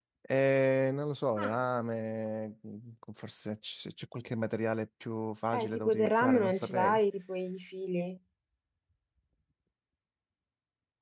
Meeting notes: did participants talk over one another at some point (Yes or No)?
Yes